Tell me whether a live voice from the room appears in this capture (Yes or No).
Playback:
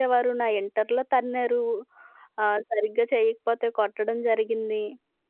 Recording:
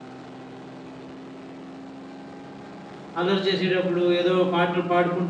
Yes